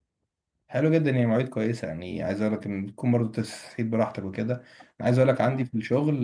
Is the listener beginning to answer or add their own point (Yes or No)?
No